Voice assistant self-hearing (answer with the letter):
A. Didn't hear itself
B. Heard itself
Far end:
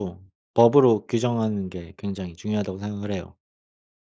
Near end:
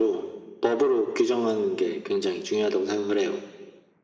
B